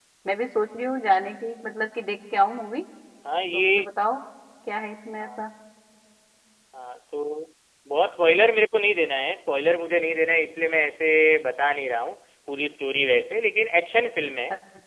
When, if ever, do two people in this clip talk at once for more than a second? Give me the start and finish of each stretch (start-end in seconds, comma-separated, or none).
none